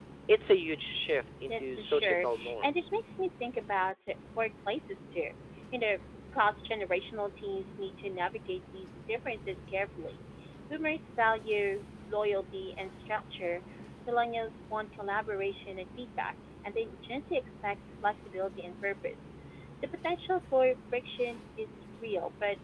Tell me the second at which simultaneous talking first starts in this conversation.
1 s

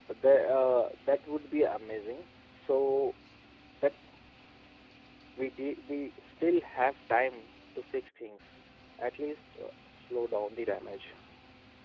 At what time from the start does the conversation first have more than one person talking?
none

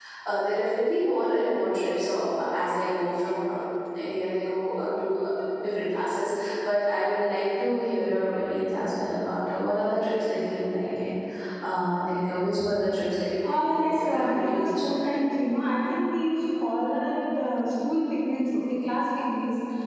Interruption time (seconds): 13 s

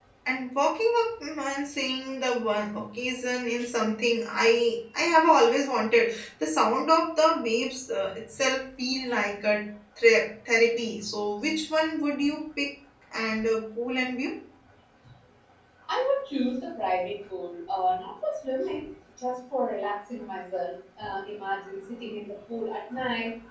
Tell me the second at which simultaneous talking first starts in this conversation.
none

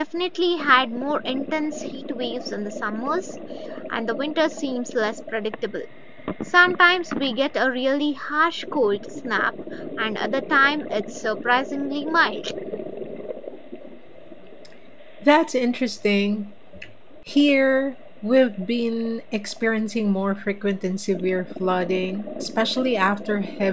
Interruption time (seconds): none

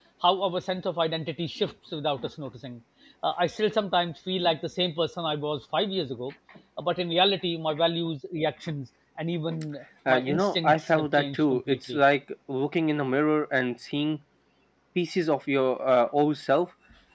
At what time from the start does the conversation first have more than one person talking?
10 s

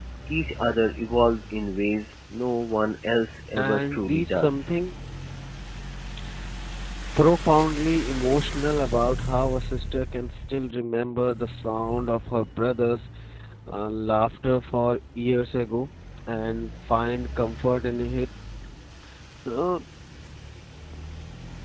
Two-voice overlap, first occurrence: 4 s

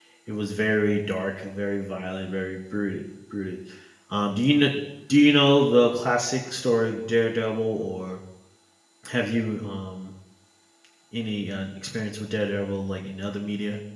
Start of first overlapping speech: none

